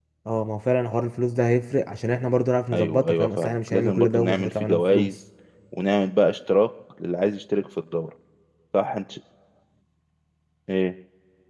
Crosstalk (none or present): present